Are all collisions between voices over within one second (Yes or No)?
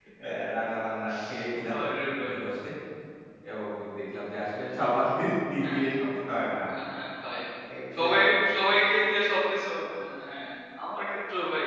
Yes